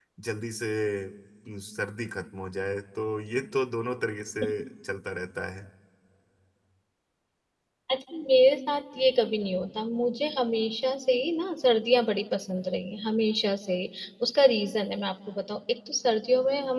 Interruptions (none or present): none